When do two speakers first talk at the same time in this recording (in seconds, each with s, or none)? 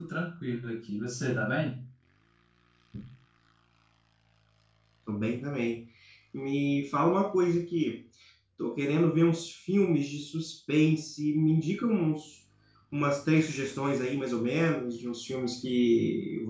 none